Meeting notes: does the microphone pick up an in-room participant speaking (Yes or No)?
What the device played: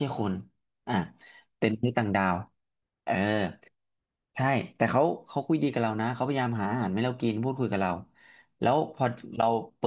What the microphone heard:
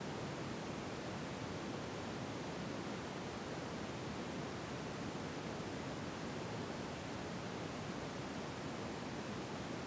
No